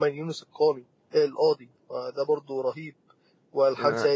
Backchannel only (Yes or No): Yes